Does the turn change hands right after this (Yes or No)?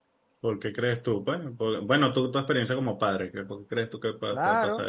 Yes